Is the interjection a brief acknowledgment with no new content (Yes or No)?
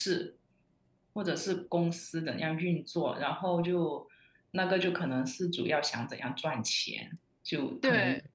Yes